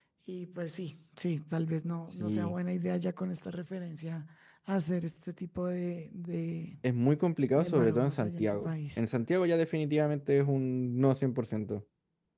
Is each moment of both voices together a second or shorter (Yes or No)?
No